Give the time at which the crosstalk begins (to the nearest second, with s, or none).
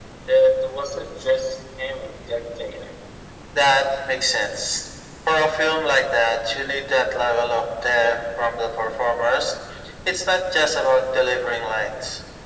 none